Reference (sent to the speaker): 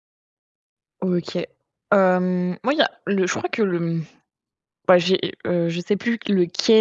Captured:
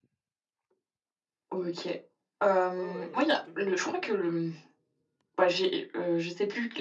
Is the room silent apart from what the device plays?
No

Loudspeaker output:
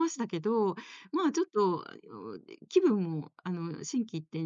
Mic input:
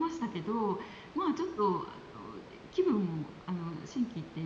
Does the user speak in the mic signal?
No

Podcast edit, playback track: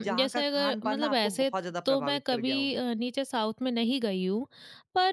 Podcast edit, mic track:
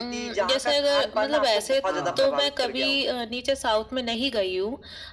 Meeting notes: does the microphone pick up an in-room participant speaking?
Yes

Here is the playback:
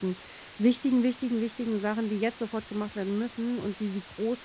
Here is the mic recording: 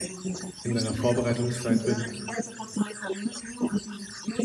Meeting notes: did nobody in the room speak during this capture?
No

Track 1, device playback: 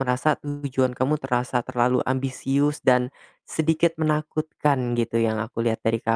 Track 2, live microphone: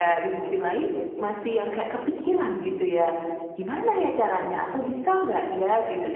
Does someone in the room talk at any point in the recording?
Yes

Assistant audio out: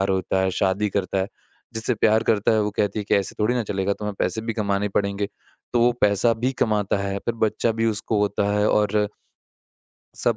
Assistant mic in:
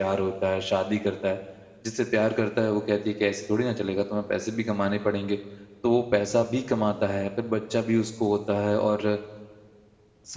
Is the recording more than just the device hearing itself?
No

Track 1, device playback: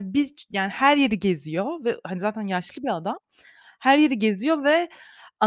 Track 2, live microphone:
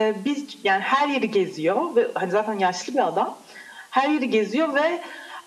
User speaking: No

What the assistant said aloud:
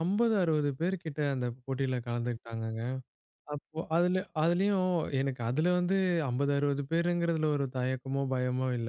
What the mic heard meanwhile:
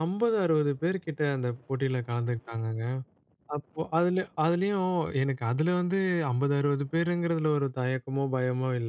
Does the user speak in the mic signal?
No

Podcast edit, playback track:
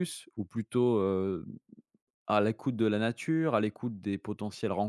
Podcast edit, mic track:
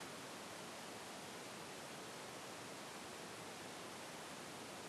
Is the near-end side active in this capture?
No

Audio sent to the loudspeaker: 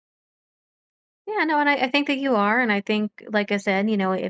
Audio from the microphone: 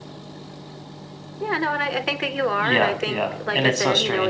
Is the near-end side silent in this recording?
No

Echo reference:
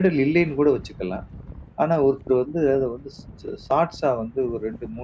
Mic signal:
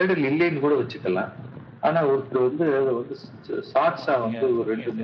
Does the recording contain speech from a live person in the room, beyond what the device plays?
Yes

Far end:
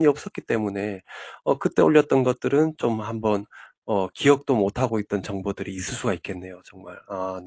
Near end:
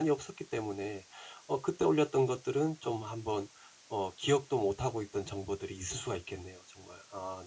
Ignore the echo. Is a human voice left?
No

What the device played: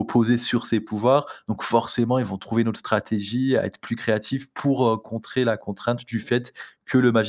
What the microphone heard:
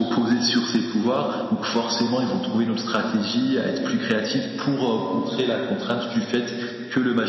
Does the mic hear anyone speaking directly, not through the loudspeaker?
No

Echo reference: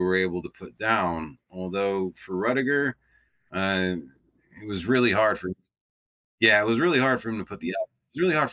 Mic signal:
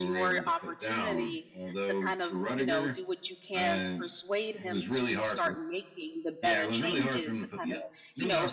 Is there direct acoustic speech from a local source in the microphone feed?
Yes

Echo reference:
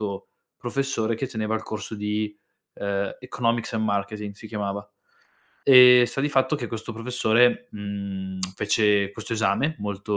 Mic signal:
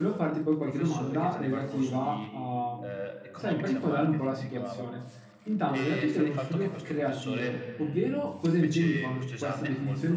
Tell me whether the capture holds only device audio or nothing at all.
No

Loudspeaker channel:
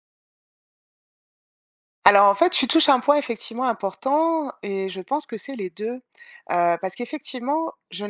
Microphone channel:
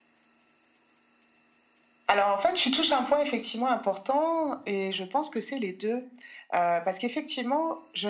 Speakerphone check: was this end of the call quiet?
Yes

